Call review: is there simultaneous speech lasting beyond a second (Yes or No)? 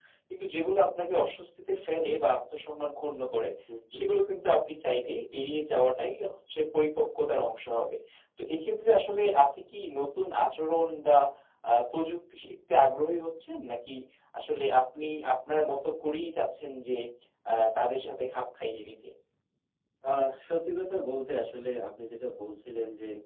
No